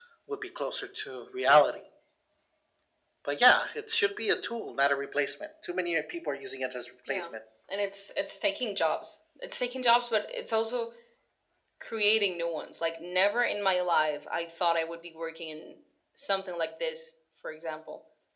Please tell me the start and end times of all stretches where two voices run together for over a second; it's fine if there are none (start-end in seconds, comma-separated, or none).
none